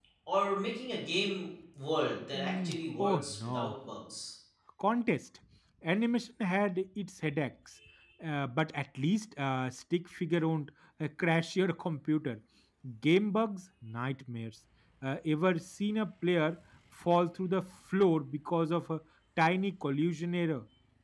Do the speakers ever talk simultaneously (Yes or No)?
Yes